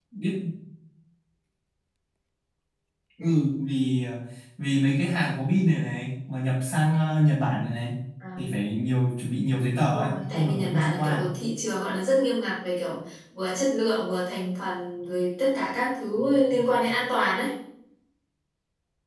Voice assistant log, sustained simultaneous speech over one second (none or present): present